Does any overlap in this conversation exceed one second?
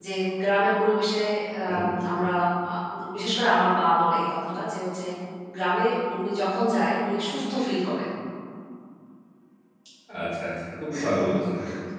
No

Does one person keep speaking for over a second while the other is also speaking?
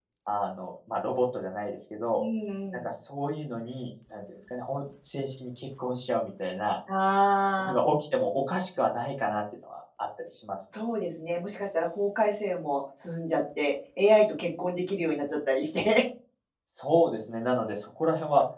No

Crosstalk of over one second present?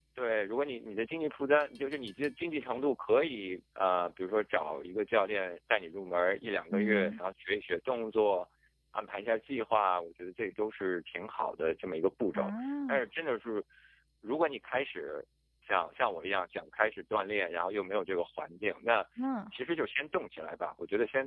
No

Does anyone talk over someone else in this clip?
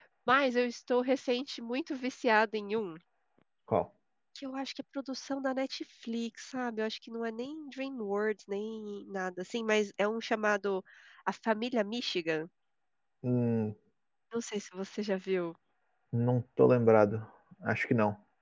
No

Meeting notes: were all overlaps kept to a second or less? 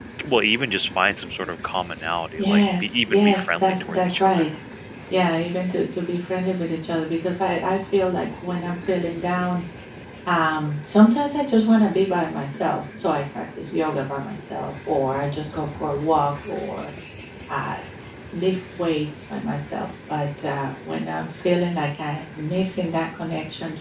No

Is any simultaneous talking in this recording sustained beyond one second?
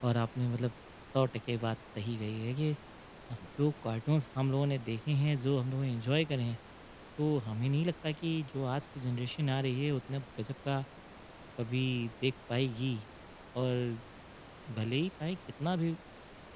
No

